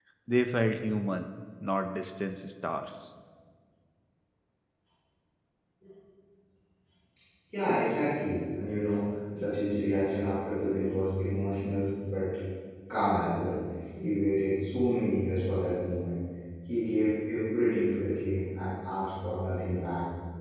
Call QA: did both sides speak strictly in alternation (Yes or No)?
Yes